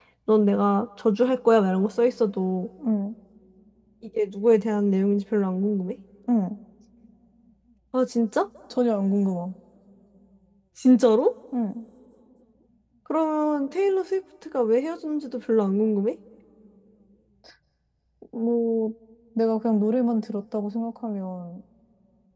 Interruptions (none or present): none